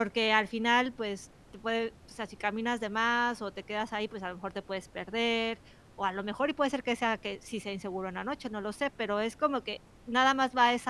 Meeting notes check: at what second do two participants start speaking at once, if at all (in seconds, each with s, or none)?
none